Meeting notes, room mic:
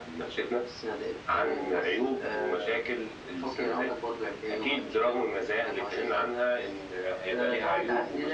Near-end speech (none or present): none